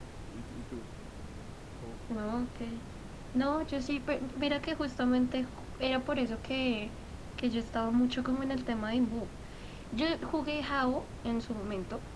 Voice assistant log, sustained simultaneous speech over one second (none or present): none